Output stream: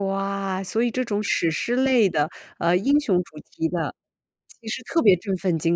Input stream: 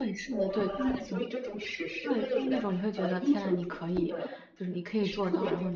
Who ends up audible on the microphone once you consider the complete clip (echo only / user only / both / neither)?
both